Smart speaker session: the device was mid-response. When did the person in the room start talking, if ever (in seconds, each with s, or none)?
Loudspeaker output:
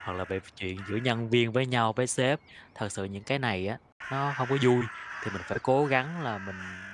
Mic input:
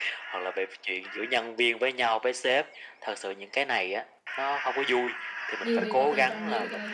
5.6 s